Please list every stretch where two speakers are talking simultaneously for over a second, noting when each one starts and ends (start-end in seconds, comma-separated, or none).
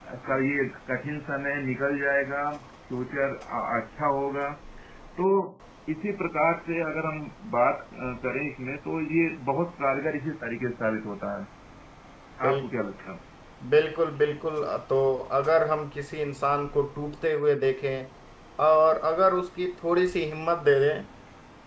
none